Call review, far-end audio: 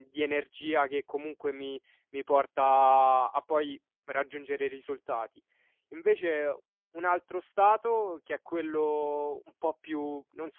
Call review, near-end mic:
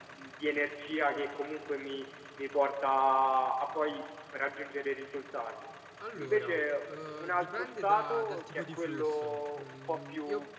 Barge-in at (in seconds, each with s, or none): 6.0 s